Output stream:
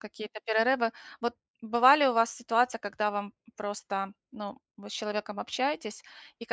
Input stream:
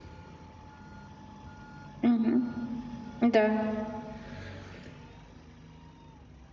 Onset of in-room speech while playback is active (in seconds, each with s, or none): 2.0 s